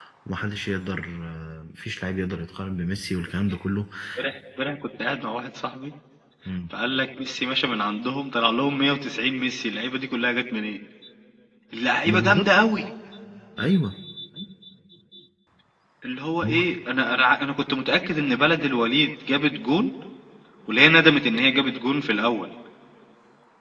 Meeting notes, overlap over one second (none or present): none